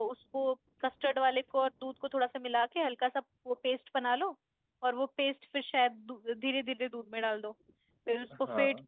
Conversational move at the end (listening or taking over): listening